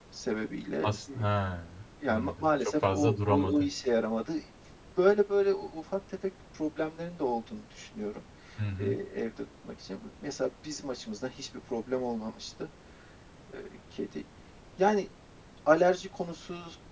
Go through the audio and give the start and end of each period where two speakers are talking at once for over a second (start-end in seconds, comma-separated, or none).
2.1-3.6